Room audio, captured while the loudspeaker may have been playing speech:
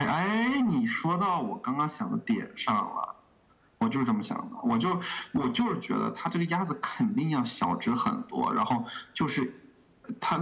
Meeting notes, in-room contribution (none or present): none